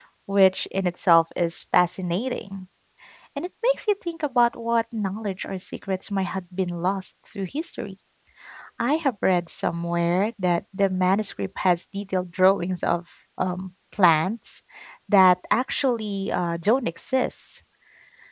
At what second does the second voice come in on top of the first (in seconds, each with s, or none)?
none